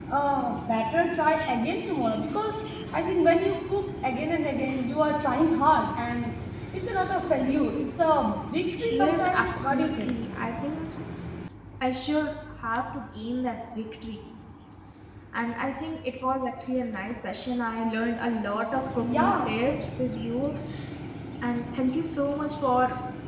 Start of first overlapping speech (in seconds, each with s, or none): 8.9 s